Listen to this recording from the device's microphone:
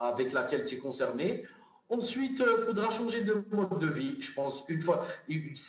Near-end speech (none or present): none